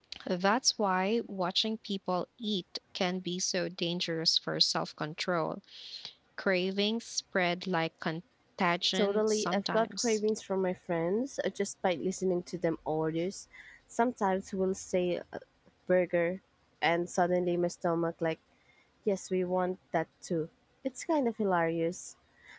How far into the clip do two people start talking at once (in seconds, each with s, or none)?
8.9 s